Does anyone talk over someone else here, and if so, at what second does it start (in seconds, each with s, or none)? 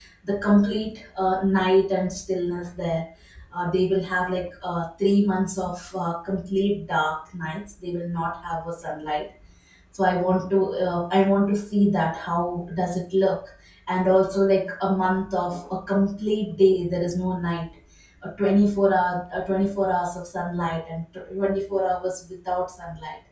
none